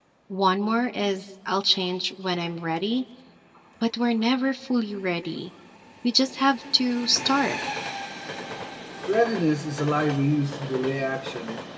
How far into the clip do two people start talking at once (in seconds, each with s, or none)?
none